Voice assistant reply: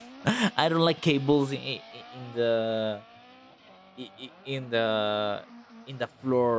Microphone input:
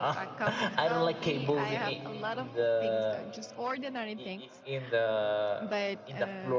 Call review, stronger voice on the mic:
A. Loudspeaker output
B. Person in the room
A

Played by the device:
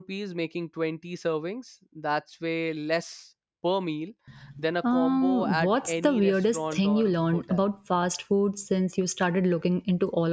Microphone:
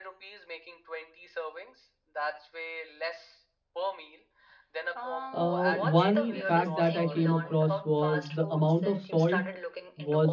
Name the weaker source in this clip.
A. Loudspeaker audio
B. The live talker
A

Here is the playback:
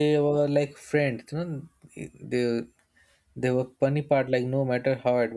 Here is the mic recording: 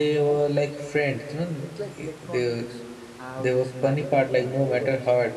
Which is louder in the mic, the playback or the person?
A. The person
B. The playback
B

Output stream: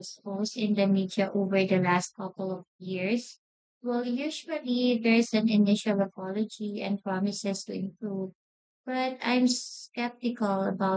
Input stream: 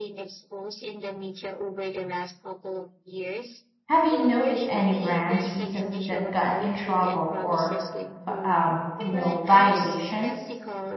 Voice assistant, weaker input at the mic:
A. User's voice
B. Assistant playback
B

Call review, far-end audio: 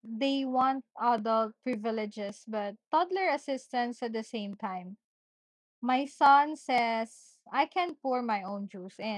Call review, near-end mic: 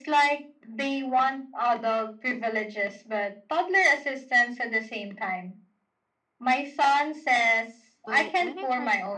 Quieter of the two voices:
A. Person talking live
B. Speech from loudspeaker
A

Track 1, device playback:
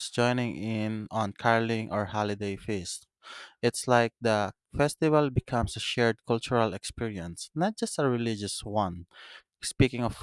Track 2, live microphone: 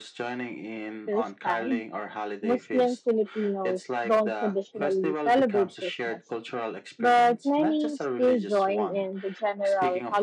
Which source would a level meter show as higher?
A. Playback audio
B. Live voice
B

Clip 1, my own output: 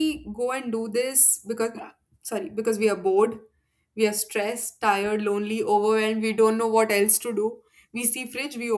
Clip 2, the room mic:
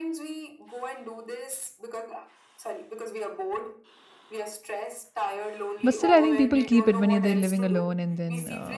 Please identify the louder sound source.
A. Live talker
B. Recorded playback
A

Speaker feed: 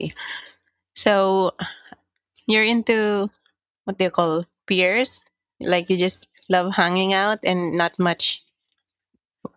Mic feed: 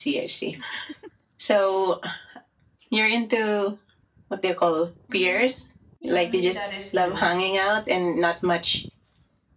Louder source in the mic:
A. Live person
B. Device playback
B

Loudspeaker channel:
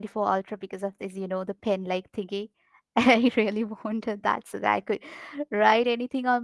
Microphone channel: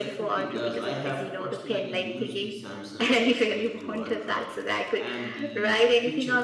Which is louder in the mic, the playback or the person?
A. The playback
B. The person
A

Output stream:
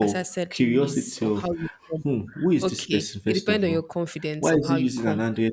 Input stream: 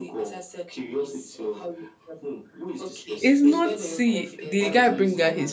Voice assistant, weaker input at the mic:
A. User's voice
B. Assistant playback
B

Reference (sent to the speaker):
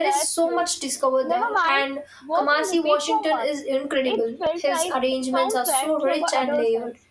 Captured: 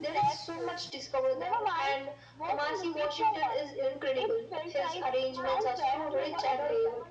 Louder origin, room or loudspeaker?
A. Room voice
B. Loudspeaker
B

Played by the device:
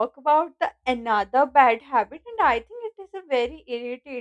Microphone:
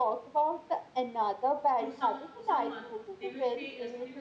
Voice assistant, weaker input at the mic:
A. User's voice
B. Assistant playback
A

